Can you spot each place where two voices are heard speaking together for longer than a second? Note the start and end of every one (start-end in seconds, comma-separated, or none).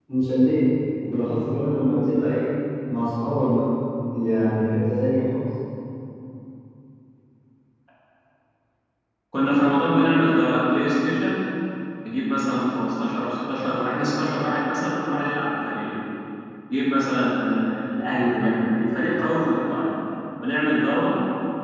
none